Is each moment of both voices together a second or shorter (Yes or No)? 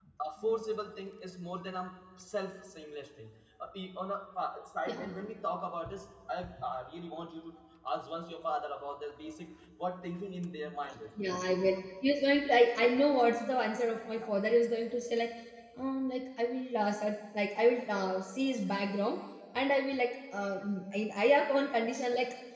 Yes